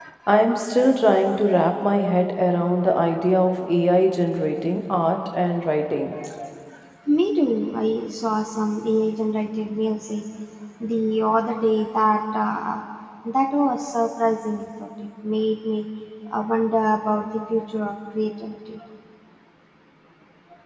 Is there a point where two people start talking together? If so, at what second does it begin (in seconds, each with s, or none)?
none